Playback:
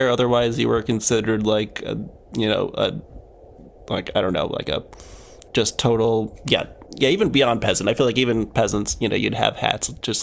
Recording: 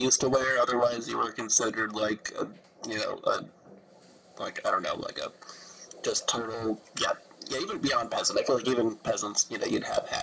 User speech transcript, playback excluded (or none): none